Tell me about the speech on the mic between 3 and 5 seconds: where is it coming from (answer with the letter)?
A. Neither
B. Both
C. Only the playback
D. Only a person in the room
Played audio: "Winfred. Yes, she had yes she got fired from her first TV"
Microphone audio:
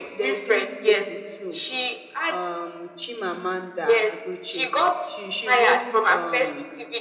B